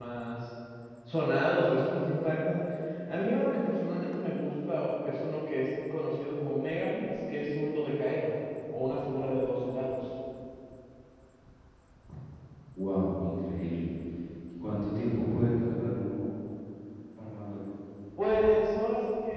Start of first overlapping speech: none

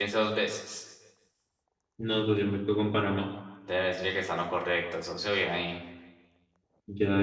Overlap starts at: none

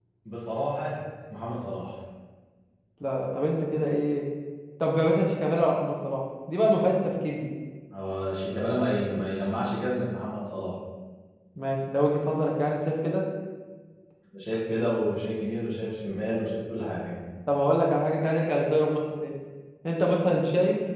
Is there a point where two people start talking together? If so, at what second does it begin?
none

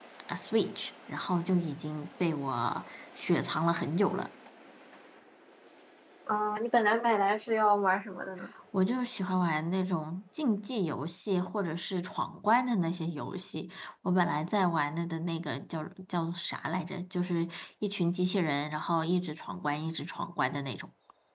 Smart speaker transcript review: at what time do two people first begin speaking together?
none

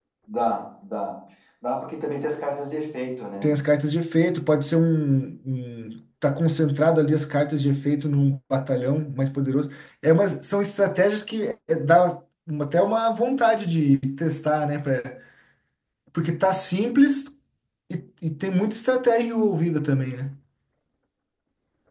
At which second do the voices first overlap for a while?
none

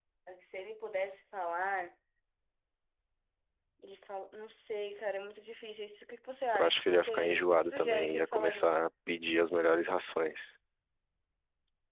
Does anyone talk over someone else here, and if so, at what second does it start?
7 s

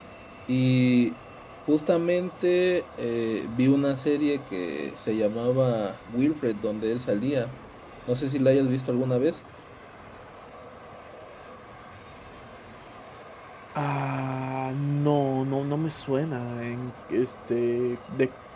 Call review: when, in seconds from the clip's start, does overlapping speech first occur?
none

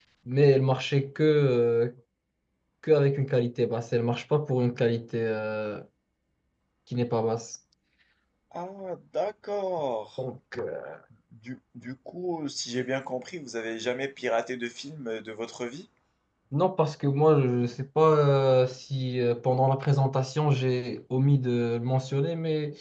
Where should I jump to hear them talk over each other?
none

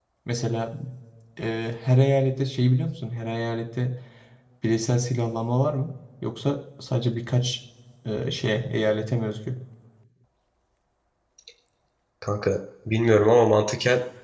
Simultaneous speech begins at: none

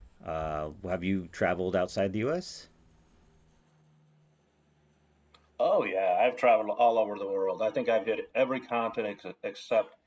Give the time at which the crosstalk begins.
none

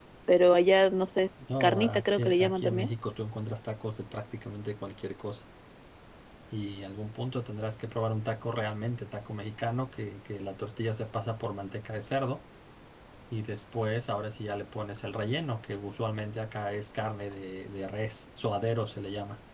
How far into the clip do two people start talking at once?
1 s

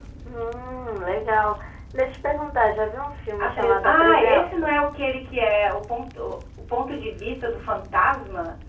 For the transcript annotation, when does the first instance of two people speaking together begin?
3 s

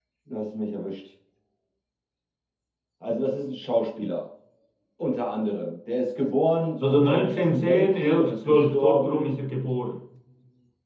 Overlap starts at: 7 s

